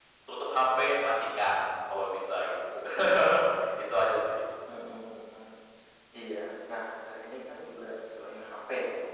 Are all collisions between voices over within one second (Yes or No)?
Yes